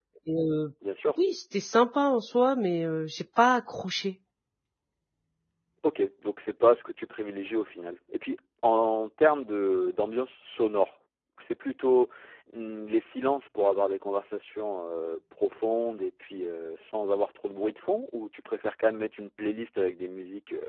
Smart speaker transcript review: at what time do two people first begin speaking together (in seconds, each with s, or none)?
none